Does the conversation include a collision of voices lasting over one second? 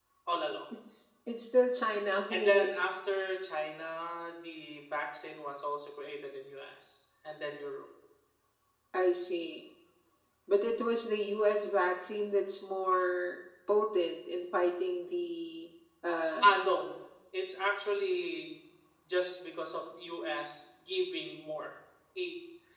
No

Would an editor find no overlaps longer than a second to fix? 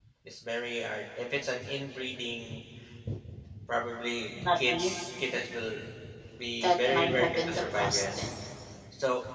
No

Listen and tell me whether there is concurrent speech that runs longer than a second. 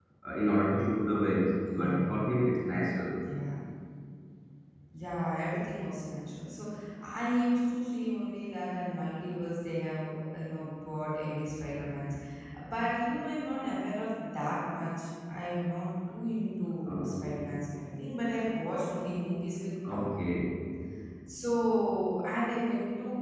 No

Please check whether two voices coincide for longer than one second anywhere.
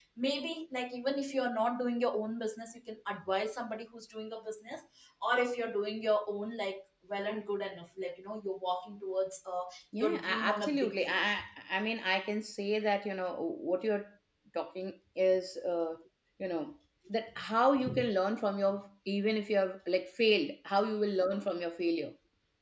Yes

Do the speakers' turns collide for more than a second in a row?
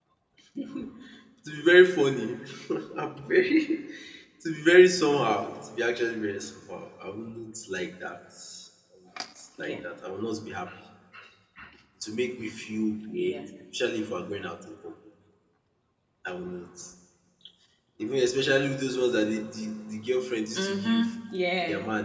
No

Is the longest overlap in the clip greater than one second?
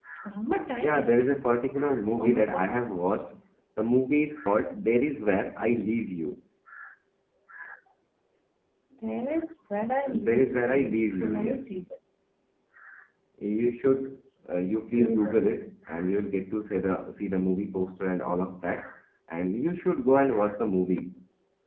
Yes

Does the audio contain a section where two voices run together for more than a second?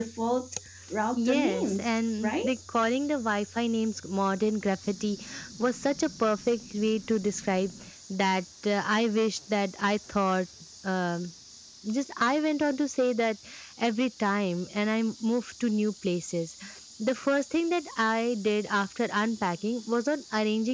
Yes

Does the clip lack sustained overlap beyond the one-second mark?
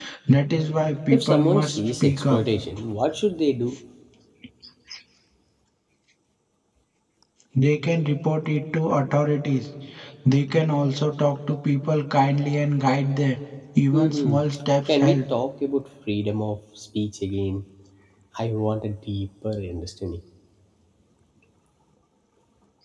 No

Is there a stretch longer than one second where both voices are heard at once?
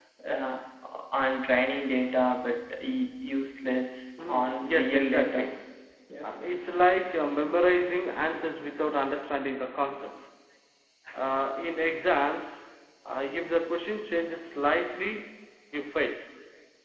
Yes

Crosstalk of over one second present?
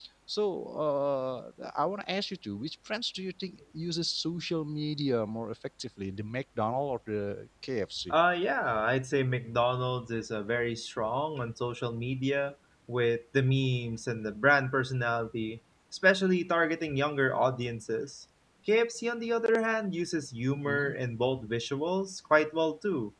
No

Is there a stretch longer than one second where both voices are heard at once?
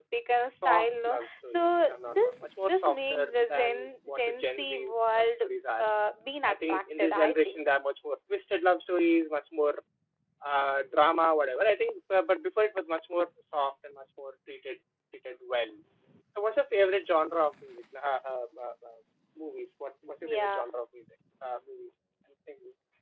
Yes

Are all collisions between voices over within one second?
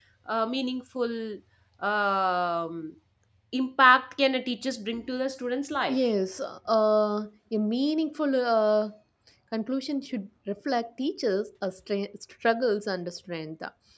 Yes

